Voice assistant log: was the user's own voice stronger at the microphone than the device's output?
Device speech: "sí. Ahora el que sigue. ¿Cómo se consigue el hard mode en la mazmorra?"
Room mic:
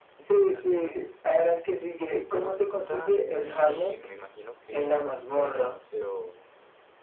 No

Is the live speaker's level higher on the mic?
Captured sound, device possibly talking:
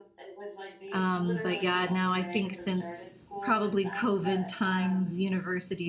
Yes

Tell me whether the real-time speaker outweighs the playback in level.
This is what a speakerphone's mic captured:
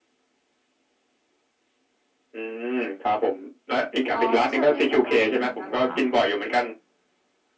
No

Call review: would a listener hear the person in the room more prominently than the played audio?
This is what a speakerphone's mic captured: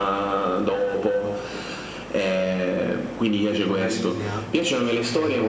No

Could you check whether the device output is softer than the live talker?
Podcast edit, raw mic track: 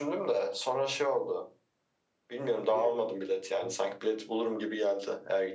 No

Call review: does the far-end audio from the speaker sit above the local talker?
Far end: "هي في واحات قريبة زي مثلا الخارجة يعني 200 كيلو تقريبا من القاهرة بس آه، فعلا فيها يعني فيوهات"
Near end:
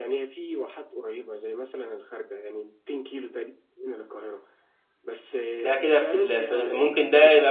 No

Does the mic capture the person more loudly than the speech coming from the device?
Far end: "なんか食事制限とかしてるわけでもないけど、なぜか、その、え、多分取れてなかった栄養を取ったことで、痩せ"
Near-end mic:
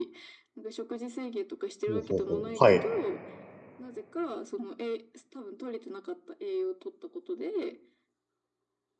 Yes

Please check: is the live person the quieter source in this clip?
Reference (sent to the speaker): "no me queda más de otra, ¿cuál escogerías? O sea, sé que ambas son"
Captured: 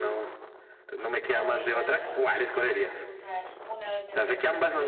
Yes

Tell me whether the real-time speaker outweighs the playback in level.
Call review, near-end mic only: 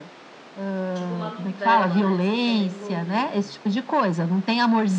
No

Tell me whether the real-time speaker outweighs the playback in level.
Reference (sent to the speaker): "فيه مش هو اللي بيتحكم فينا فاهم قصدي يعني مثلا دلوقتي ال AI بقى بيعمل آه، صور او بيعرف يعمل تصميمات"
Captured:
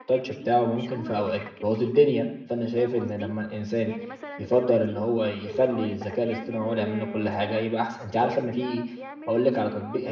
Yes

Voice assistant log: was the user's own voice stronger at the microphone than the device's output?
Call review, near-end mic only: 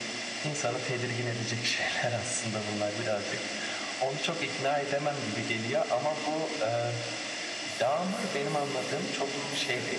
No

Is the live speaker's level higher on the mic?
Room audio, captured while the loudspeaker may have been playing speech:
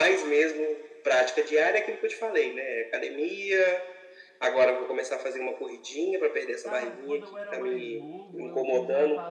No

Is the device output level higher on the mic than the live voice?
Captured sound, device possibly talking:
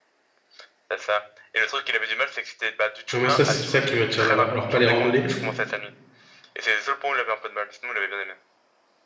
No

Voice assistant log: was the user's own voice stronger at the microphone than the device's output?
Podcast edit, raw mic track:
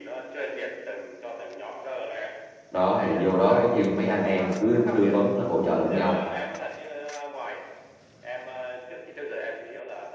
Yes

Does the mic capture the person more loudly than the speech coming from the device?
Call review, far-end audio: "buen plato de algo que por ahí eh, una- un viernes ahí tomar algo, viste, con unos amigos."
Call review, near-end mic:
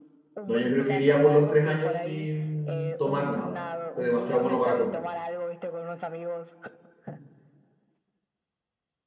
Yes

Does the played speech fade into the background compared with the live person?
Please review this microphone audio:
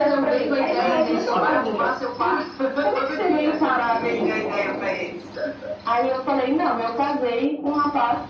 No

